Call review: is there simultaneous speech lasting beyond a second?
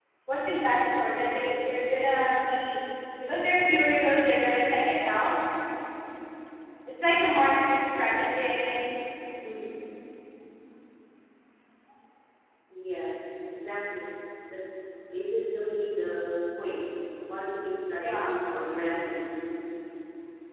No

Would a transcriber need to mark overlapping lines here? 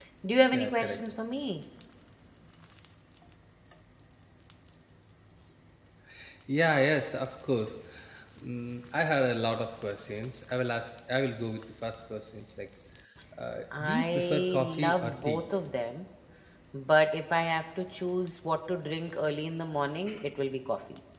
Yes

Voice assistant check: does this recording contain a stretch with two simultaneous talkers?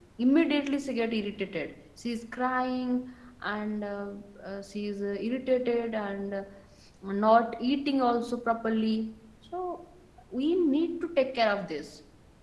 No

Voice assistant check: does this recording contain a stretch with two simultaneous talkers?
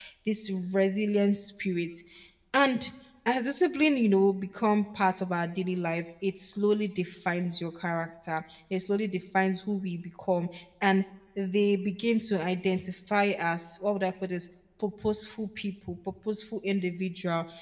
No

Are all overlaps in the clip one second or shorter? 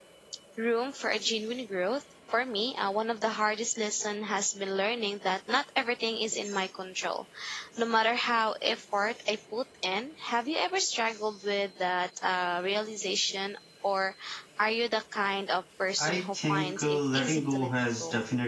No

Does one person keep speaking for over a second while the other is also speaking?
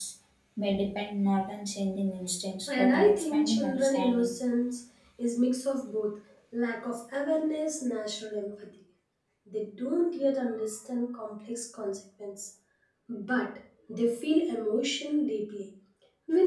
Yes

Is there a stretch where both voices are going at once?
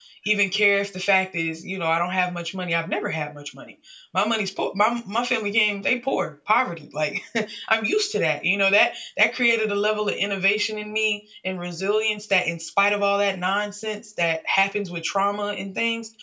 No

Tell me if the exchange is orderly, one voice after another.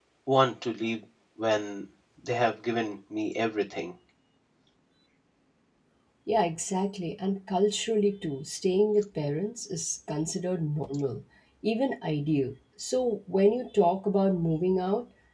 Yes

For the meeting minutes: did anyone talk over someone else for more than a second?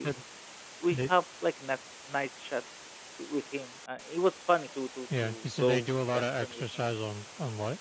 Yes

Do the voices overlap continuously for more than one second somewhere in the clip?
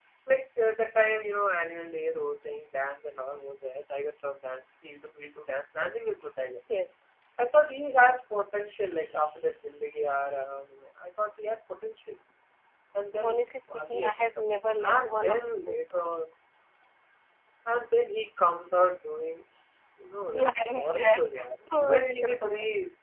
Yes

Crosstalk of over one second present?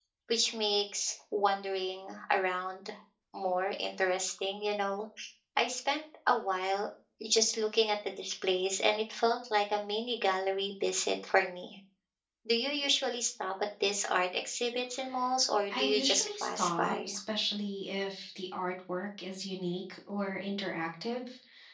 Yes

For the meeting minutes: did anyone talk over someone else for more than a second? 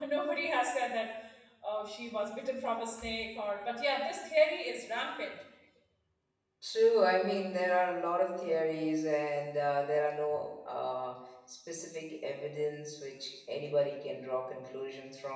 No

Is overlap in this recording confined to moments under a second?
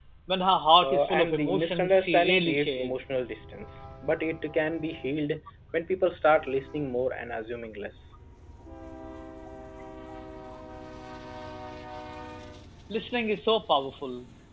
No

